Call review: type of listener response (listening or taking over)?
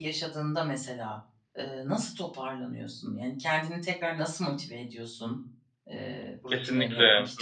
taking over